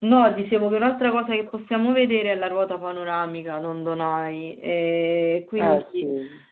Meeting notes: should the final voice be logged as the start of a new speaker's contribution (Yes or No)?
No